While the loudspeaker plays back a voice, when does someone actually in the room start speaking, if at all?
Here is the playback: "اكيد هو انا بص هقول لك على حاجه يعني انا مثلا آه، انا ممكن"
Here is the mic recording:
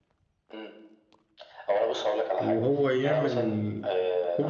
2.4 s

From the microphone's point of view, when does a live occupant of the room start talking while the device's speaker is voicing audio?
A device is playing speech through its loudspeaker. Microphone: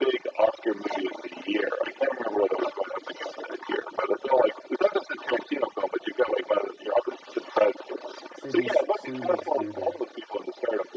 8.3 s

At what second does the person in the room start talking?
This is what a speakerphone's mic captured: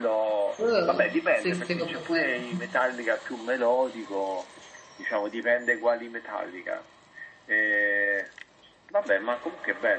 0.6 s

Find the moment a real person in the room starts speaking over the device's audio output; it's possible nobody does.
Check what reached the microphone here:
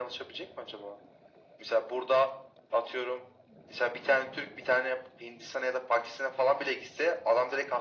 none

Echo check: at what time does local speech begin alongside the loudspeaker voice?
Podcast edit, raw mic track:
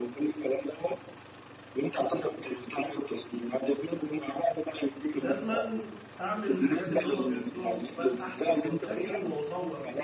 5.2 s

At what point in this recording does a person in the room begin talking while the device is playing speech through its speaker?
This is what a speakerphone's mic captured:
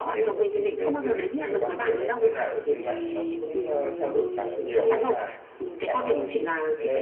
none

